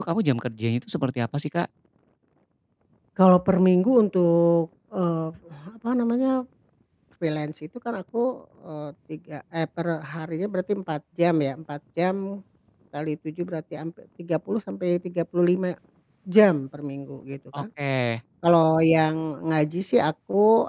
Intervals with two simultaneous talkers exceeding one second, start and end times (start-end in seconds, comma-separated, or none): none